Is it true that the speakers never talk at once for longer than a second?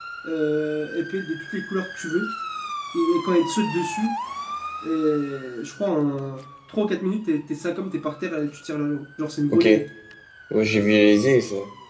Yes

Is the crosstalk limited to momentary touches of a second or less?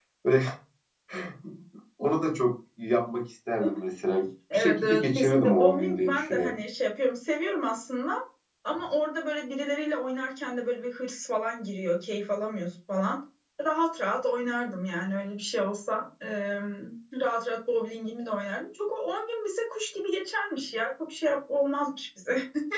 No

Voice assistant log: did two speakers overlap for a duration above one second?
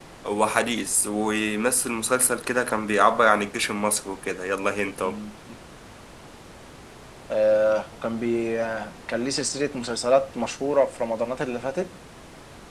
No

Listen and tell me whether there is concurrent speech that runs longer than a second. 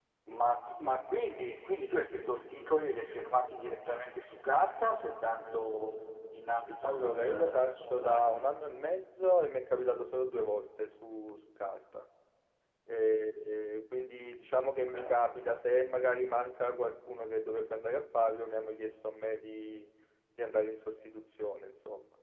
Yes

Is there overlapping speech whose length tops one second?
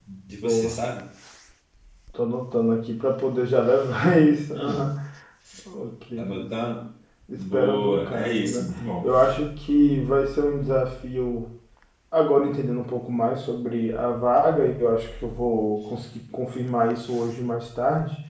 Yes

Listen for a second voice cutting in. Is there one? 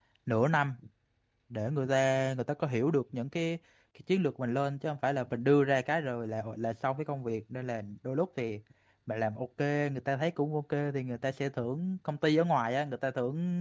No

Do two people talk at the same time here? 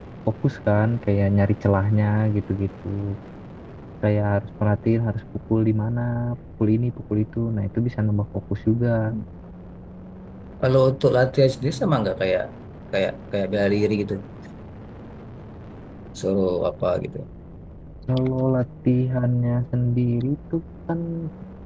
No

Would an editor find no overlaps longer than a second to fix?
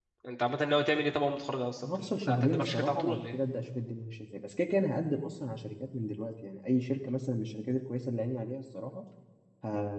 No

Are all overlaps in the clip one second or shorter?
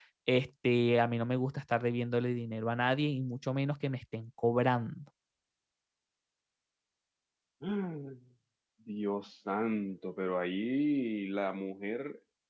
Yes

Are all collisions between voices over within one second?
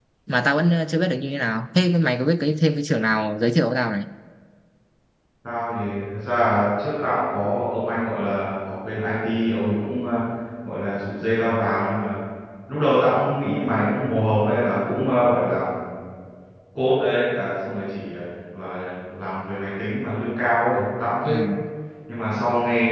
Yes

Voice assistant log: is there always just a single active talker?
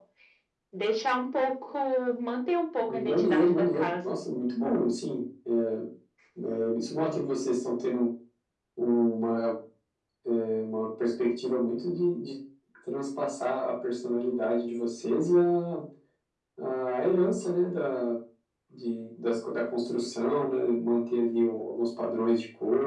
No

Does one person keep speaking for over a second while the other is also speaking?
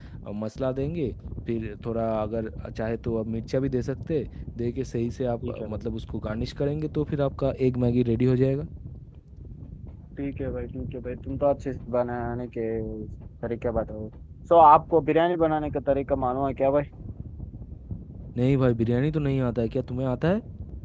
No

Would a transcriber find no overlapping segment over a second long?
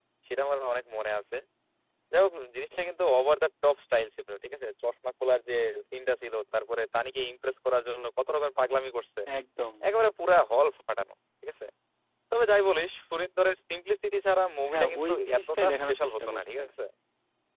No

